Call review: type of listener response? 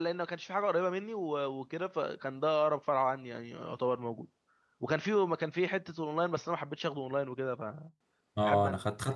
taking over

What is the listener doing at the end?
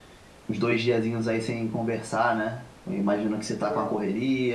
listening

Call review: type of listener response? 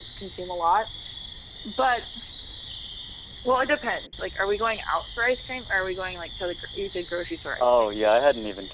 taking over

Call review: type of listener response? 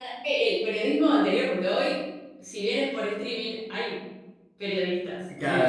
taking over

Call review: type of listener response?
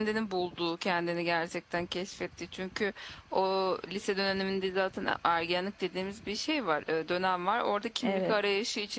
listening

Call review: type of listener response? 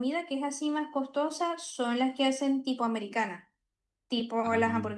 listening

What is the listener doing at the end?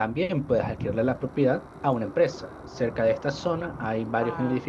listening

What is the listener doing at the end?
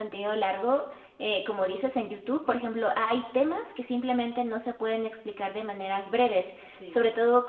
listening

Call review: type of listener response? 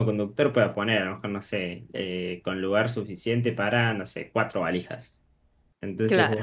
listening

